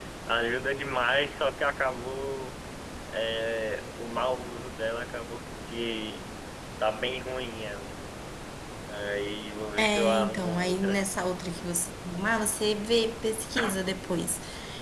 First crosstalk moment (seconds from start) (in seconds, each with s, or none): 9.8 s